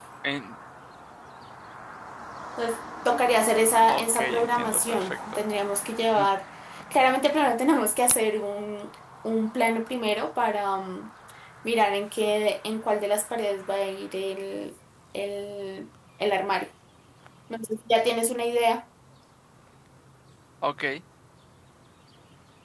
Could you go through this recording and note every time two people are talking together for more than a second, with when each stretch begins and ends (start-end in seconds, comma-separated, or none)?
3.8-5.4